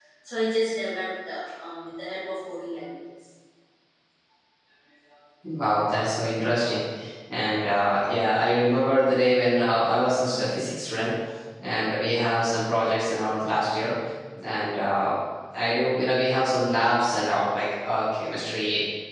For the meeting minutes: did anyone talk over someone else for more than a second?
No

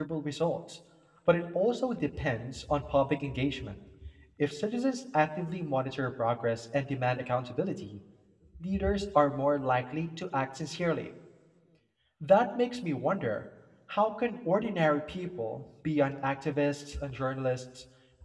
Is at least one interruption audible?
No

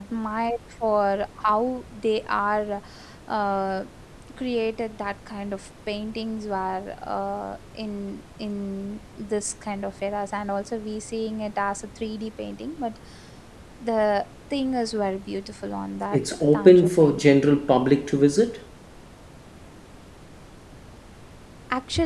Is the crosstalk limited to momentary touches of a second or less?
No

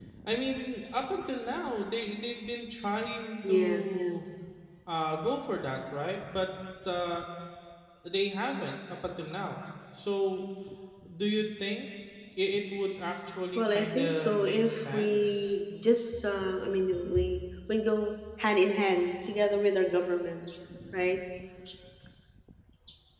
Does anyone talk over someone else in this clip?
Yes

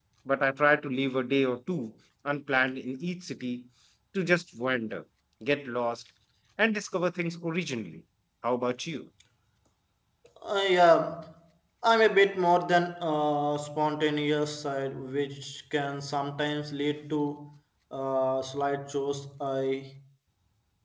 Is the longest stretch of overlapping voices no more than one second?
Yes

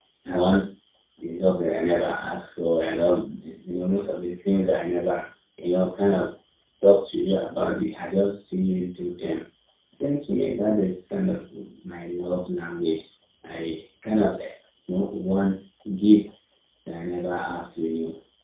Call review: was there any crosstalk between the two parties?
No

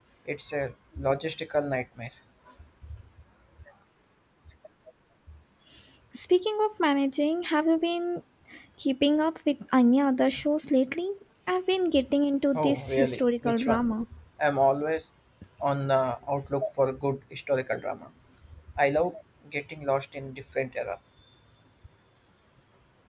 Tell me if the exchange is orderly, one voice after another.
No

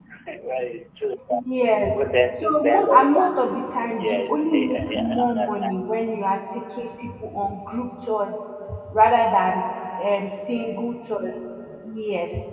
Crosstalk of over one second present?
Yes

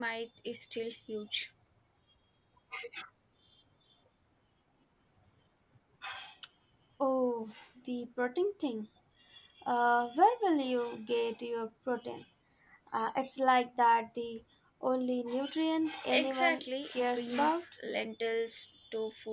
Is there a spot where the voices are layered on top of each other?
Yes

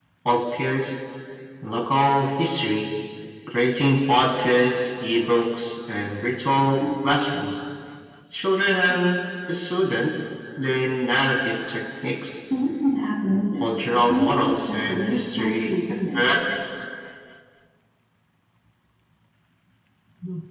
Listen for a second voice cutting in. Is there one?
Yes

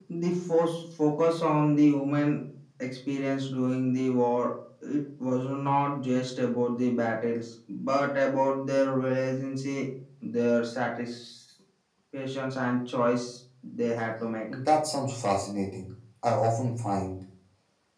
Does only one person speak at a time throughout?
Yes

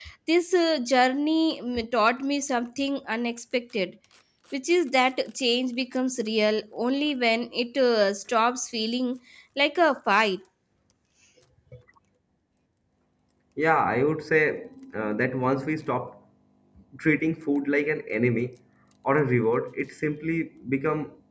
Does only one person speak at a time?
Yes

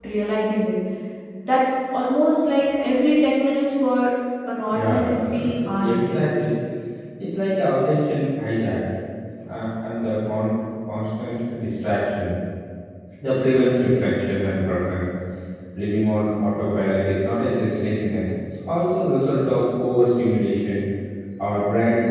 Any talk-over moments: Yes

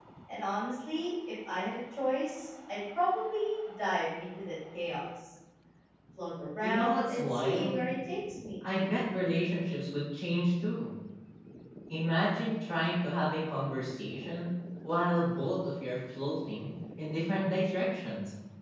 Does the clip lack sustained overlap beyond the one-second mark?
No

